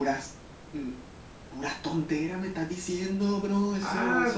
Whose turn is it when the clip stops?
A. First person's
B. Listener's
B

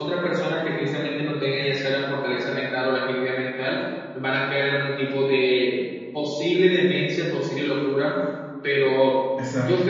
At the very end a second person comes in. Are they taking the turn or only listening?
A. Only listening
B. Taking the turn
A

